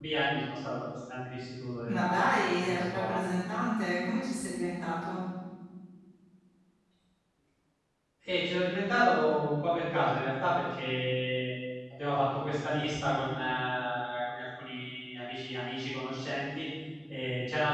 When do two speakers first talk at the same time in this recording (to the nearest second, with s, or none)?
2 s